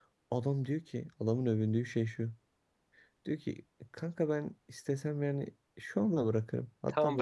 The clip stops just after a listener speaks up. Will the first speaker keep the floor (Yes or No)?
No